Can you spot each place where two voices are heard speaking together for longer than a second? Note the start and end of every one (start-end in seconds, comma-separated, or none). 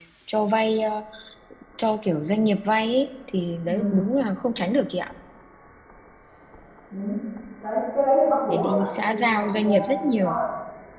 8.4-10.3